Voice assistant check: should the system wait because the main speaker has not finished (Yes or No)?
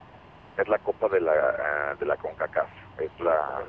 Yes